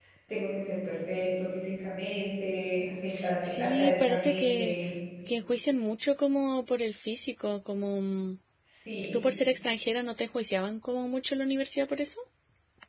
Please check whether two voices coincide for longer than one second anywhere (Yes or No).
Yes